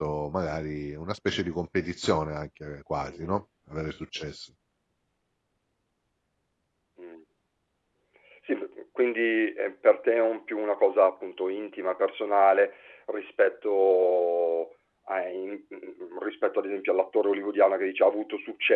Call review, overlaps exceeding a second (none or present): none